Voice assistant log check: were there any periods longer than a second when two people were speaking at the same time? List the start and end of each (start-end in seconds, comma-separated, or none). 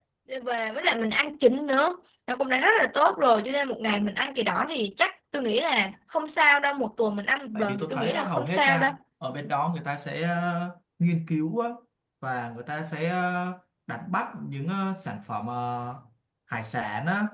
7.6-8.9